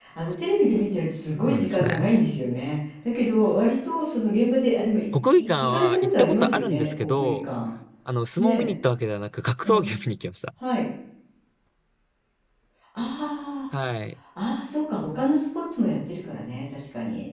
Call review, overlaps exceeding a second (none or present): present